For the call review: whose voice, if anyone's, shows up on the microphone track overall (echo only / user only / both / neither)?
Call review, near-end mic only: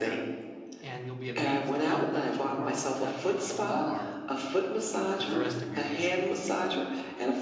both